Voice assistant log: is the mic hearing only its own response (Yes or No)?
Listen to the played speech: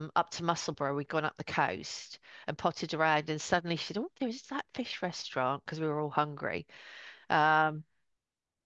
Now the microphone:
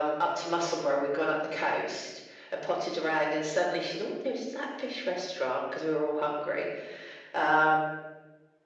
Yes